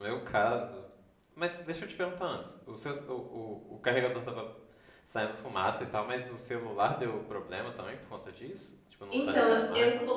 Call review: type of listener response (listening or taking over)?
taking over